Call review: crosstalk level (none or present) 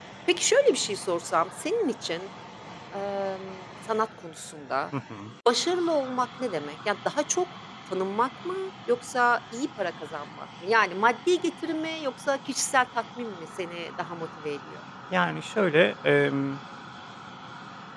none